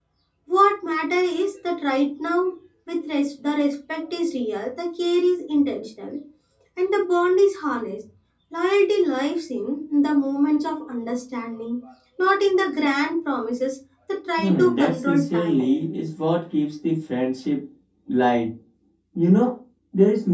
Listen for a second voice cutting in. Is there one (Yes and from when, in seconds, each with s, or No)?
Yes, from 14.4 s